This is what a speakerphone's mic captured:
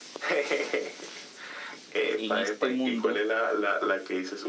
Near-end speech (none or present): present